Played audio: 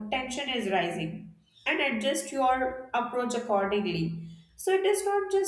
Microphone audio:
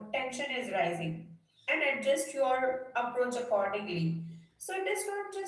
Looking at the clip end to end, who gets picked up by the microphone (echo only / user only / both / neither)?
echo only